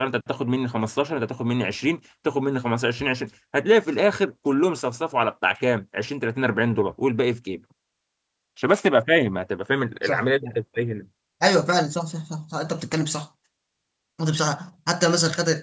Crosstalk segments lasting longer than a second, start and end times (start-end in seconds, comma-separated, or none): none